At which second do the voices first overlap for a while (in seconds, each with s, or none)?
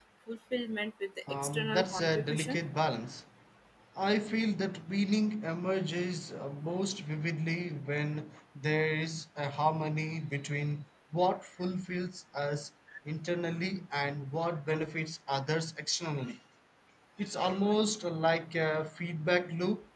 1.3 s